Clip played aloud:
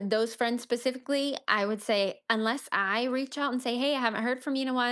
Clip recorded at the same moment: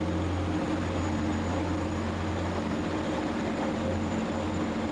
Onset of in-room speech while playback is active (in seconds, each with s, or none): none